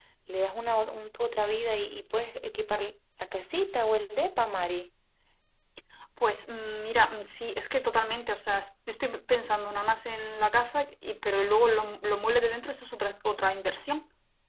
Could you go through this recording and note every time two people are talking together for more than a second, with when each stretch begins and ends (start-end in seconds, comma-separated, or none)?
none